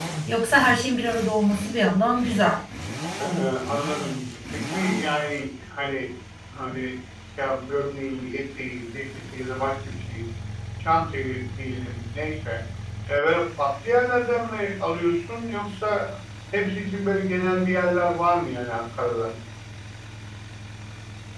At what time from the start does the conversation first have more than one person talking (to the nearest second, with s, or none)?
none